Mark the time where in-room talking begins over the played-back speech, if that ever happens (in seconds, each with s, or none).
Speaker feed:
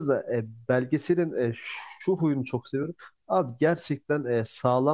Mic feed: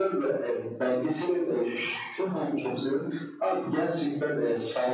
none